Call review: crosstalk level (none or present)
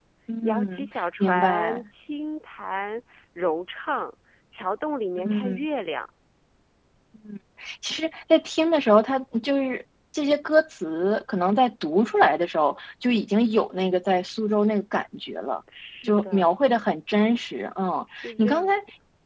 present